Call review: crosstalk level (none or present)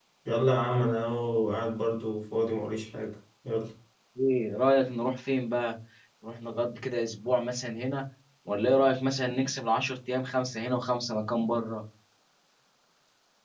none